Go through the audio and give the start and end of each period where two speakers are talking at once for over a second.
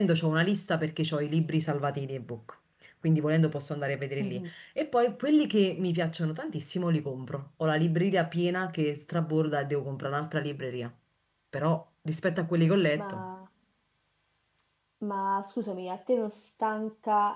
none

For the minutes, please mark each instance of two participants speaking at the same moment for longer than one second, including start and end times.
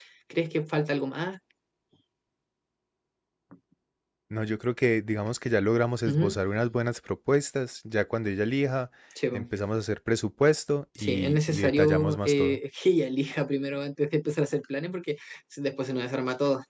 11.0-12.6

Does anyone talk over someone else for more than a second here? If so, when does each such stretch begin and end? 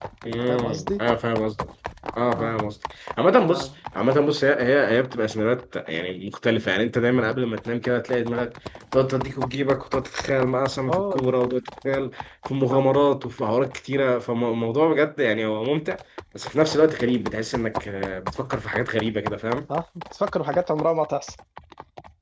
none

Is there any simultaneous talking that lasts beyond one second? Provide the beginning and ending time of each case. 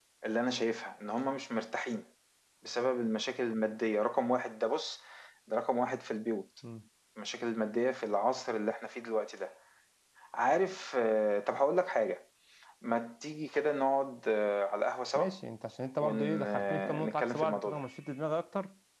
16.0-17.8

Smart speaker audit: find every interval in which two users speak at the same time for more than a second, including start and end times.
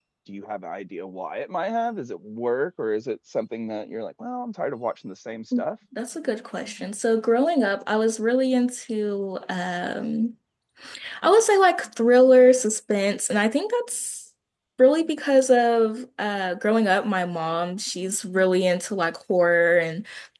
none

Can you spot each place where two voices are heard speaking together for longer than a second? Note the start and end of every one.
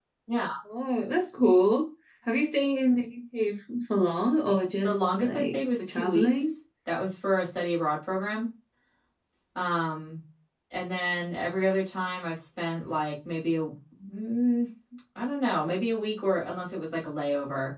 4.8-6.5

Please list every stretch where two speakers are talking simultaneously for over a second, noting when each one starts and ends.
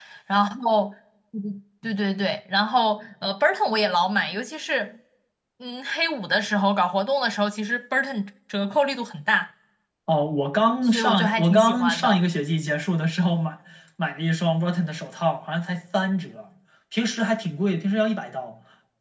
10.8-12.2

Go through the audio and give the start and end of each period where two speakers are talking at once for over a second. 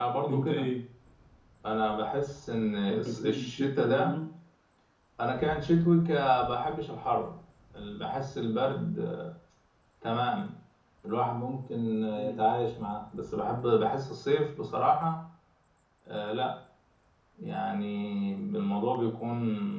2.9-4.1

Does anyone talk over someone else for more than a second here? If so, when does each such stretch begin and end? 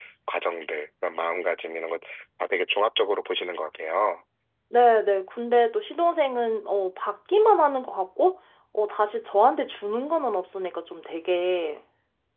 none

